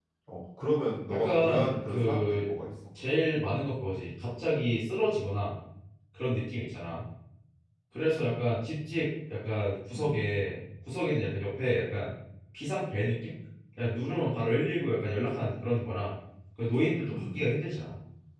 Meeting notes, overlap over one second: present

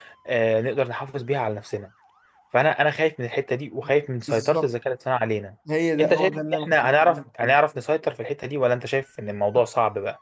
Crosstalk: present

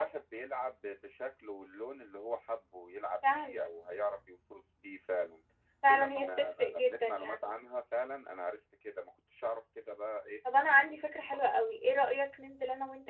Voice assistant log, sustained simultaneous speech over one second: present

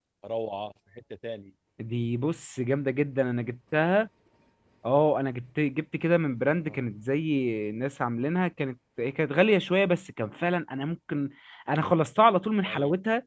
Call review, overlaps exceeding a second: none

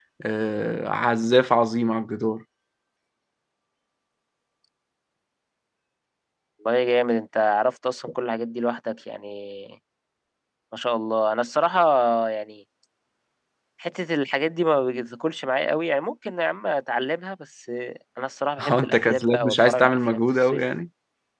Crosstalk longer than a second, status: present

